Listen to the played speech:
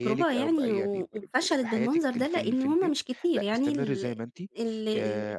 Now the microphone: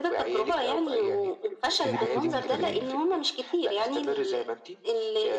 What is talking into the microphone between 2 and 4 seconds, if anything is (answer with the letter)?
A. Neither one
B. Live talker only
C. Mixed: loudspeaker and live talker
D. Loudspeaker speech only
C